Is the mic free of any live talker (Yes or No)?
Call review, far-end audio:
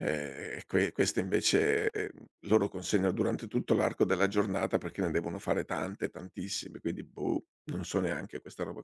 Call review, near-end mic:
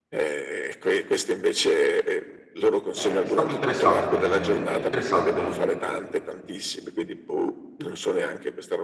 No